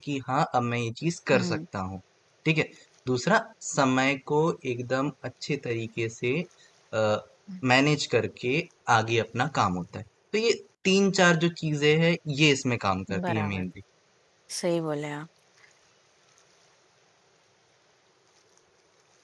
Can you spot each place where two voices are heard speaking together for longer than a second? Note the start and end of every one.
none

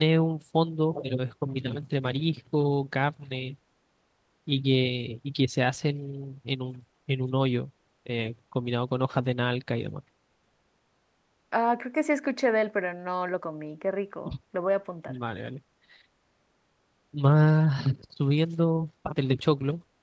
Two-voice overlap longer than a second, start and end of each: none

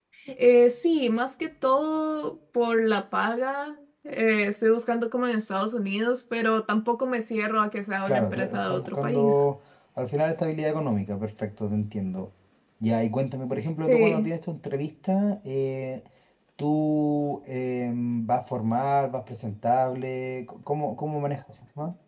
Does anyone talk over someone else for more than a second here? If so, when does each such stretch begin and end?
8.1-9.3

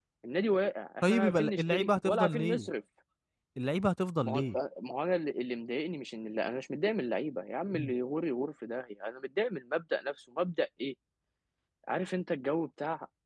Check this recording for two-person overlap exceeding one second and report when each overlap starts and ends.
1.0-2.7

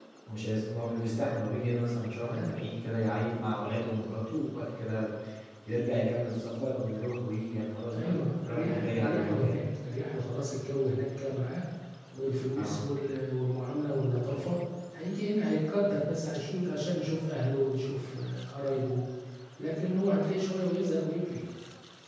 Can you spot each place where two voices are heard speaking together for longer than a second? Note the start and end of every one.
7.9-9.6

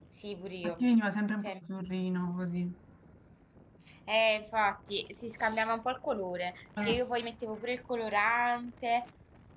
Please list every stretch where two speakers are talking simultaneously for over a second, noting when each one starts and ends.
none

